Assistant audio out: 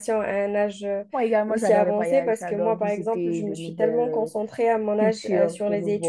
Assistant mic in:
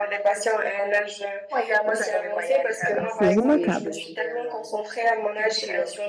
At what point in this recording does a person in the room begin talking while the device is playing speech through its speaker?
3 s

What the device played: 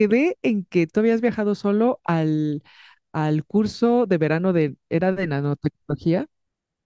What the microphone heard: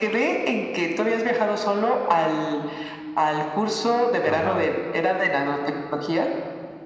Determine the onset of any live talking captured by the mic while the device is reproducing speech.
4 s

